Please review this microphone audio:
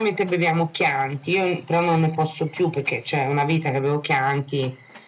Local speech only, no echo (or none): none